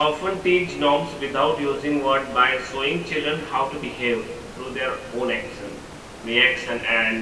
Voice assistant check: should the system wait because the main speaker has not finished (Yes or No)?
Yes